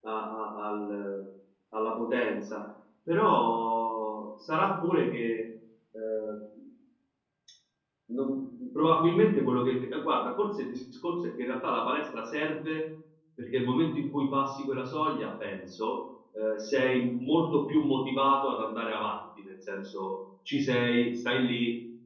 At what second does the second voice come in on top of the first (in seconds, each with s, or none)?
none